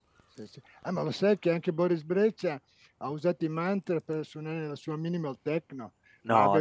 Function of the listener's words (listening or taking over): listening